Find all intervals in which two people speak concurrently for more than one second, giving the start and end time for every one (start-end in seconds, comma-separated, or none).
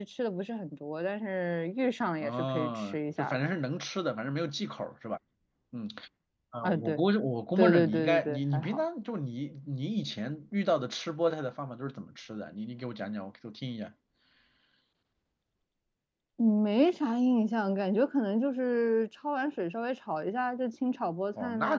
2.2-3.4, 7.6-8.8